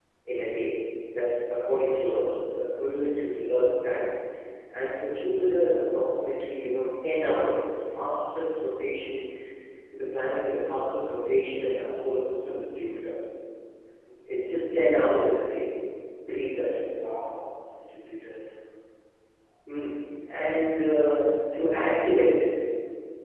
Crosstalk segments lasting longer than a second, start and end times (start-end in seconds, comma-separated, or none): none